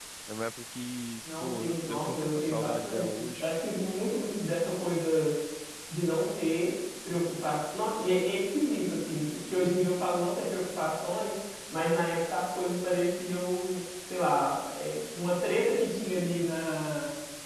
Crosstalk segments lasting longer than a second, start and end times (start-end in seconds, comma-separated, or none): 1.4-3.4